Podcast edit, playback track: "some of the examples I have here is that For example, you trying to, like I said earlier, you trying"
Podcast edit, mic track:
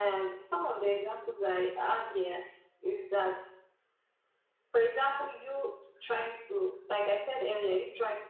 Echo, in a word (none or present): present